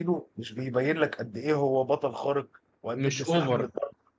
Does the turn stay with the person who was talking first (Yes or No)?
Yes